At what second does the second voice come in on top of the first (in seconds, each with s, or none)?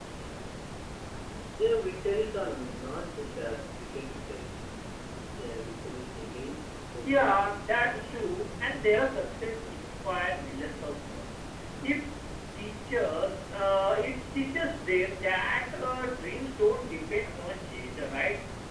7.0 s